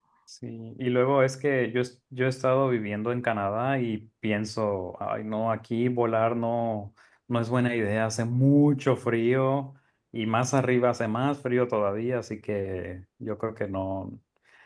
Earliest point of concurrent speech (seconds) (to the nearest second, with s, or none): none